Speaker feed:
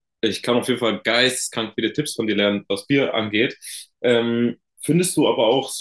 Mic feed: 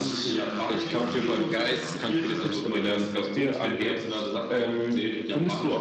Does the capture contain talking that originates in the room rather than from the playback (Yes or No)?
Yes